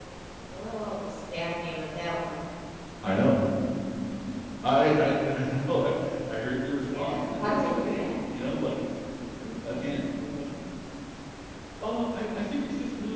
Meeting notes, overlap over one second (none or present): present